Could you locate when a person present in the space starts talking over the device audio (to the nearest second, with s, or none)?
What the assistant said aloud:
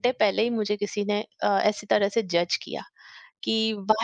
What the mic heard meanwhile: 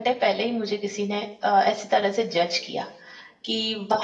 none